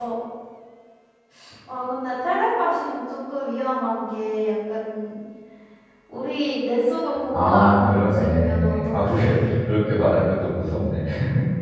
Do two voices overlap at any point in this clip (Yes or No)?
Yes